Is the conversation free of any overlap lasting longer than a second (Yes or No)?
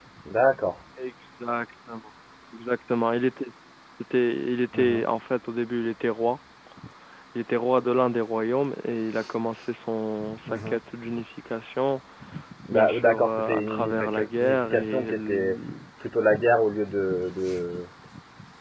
No